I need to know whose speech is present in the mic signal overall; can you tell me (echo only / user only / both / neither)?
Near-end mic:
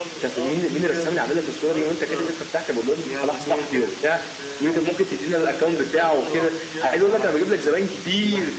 echo only